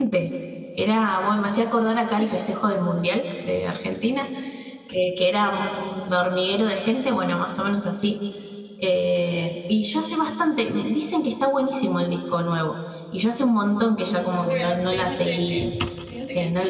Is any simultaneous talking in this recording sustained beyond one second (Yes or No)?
Yes